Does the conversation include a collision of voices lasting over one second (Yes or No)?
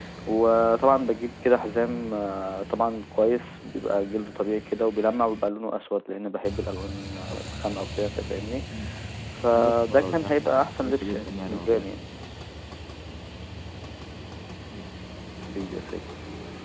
Yes